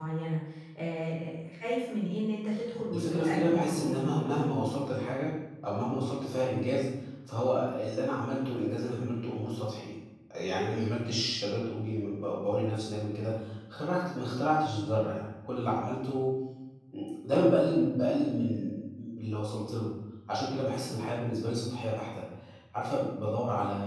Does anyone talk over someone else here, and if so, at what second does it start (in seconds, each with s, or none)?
2.9 s